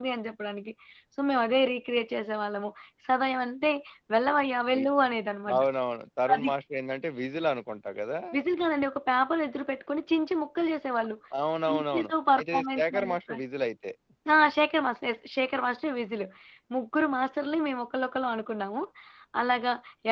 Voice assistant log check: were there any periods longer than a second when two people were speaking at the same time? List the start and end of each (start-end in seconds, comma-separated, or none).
11.7-13.4